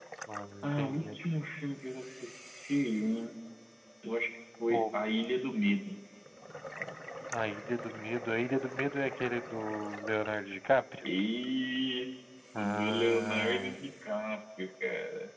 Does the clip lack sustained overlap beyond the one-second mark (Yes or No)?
No